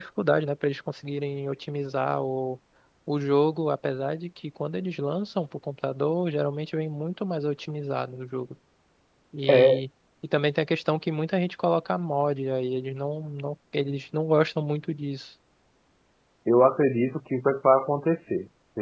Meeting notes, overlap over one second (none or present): none